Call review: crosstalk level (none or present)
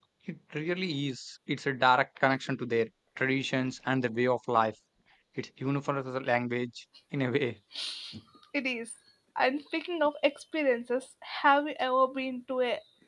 none